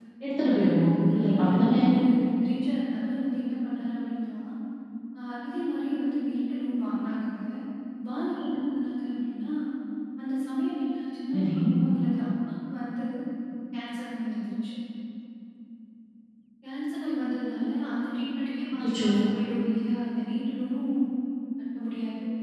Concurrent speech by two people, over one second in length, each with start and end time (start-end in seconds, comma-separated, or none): 0.5-1.8